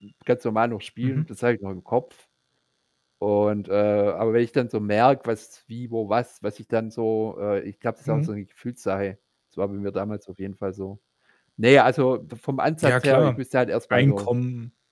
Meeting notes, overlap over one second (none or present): none